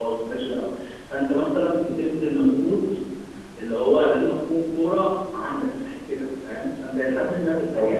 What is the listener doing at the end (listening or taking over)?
listening